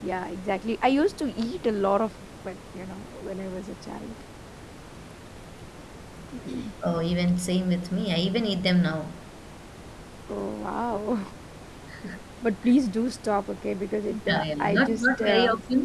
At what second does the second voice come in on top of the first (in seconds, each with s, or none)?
14.1 s